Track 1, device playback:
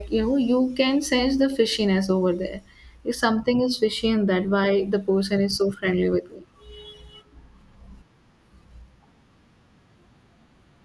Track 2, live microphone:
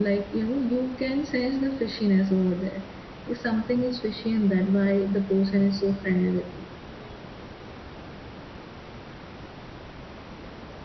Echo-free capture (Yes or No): No